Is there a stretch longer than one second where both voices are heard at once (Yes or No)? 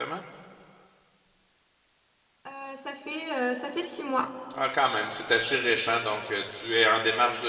No